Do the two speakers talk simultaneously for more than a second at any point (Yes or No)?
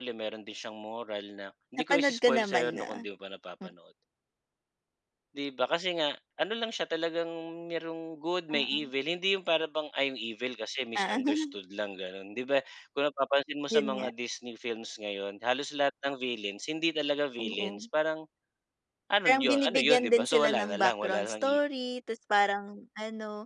Yes